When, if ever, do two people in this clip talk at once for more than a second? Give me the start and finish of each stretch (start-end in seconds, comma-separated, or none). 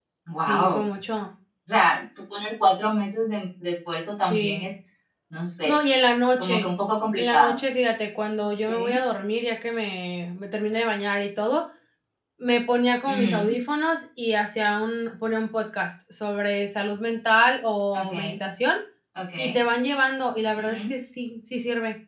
none